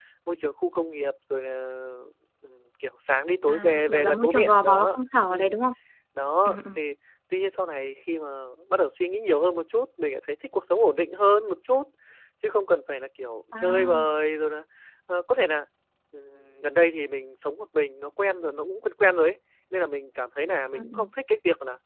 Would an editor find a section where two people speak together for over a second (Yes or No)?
Yes